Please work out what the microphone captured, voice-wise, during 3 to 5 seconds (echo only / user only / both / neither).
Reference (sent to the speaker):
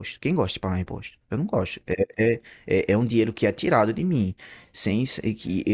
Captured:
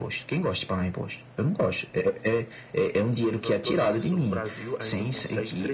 both